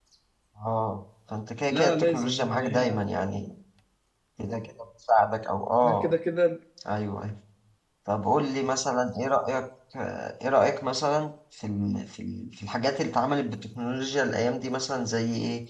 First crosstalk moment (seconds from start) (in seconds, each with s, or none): 1.7 s